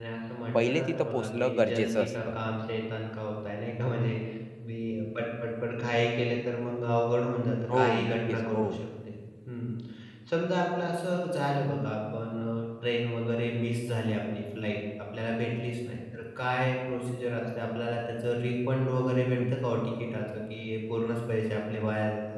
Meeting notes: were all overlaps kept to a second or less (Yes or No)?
No